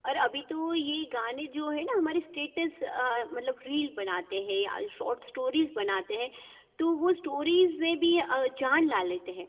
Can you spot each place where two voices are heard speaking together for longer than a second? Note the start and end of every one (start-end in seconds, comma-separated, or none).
none